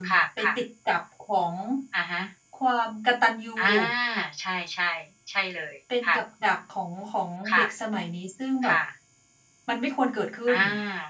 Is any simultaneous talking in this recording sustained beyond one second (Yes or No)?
No